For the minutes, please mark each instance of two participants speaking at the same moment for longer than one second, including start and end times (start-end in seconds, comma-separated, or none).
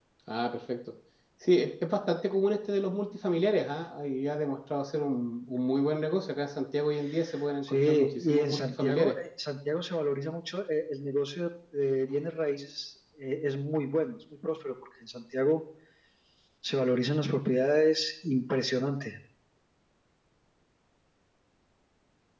7.6-9.2